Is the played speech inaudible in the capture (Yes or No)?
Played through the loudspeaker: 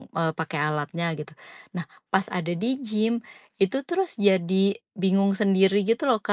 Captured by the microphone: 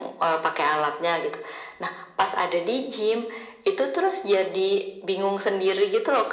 No